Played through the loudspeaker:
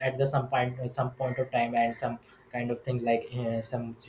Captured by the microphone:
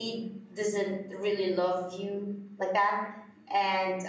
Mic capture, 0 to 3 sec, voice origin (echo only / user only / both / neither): user only